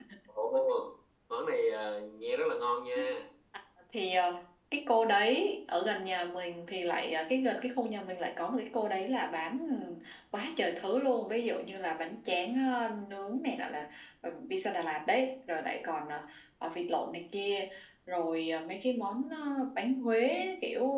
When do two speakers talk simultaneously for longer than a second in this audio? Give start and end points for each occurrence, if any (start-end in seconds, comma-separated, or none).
none